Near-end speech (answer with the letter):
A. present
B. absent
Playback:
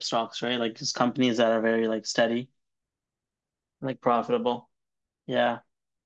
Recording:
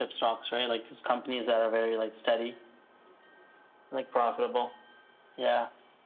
B